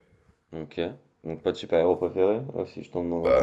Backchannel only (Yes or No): No